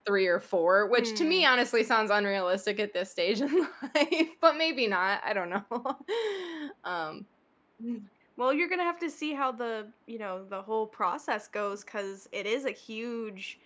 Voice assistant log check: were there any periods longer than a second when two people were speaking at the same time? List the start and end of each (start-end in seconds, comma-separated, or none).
none